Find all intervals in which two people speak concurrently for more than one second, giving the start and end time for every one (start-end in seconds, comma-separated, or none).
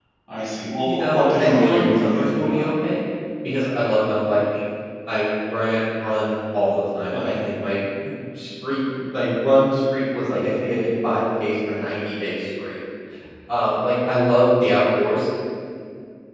0.8-2.6